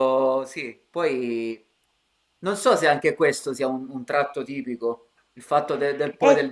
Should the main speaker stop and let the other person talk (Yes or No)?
No